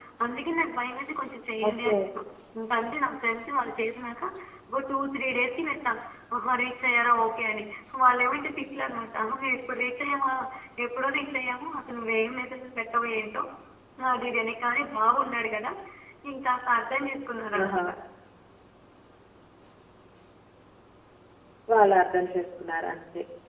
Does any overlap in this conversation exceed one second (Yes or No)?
No